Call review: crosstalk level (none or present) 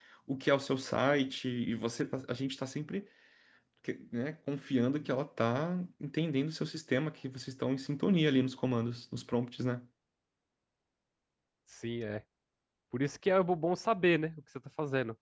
none